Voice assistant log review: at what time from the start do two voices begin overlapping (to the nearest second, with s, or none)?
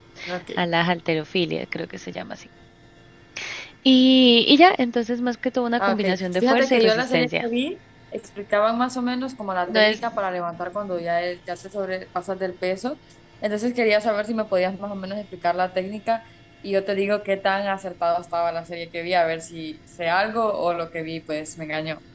6 s